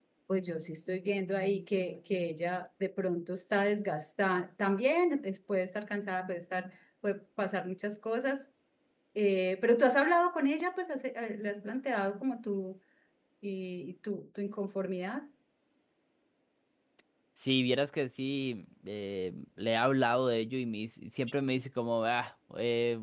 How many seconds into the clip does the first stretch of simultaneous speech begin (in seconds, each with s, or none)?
none